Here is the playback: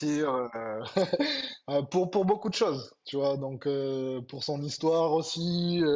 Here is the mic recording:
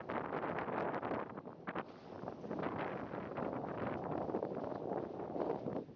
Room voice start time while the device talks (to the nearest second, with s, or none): none